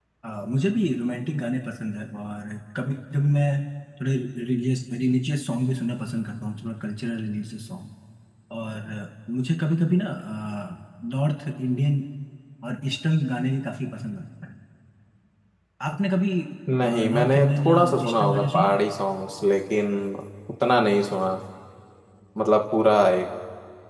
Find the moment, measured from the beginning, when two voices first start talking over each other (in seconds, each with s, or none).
16.8 s